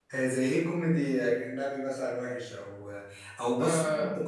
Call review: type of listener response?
listening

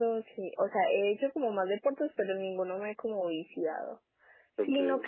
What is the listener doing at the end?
listening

